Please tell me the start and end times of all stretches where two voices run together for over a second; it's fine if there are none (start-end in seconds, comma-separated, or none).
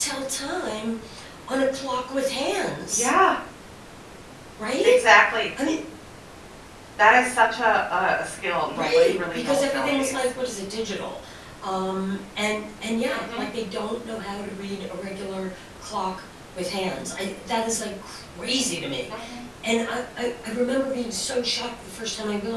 8.7-10.3